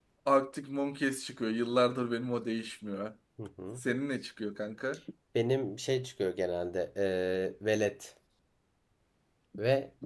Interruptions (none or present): none